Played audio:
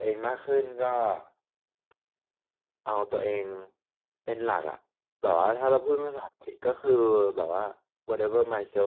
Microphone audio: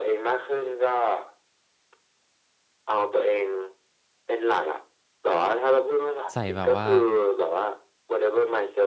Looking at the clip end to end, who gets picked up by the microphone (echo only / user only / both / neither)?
both